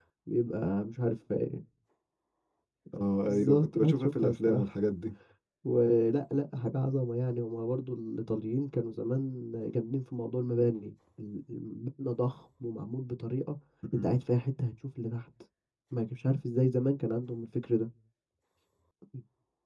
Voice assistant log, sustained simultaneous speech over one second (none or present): present